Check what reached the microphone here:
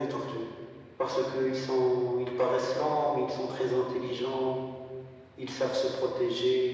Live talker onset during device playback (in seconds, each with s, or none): none